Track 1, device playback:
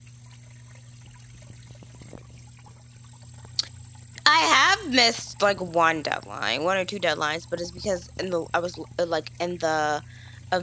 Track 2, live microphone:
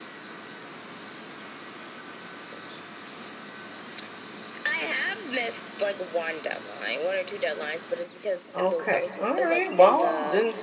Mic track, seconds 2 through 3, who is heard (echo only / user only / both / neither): neither